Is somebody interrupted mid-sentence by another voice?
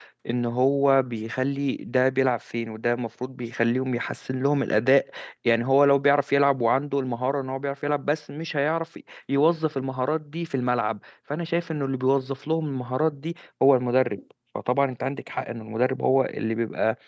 No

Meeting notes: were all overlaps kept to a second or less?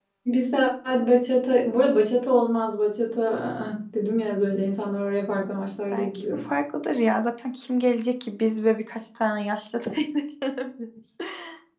Yes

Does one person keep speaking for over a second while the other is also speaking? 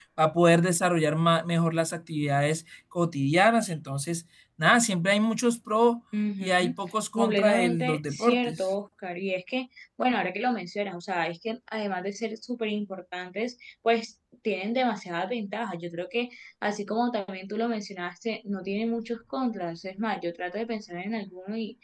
Yes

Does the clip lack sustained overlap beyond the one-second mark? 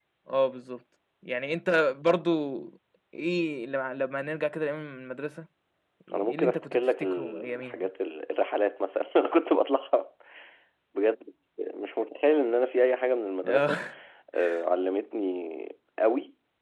No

